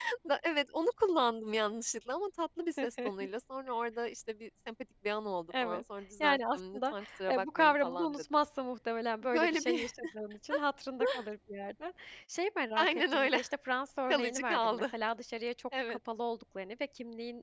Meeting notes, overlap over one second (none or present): present